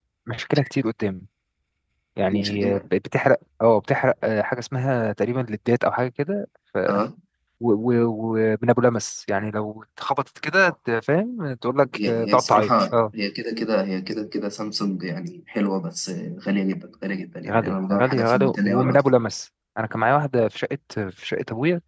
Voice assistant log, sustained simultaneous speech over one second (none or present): present